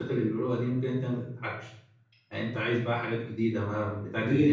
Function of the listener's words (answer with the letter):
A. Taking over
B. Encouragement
A